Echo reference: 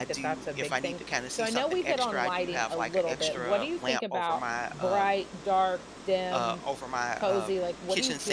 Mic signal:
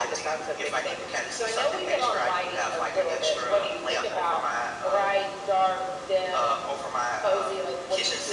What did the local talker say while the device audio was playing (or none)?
none